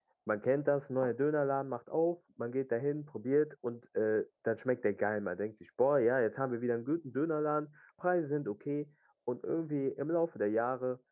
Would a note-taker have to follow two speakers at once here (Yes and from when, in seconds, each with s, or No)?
No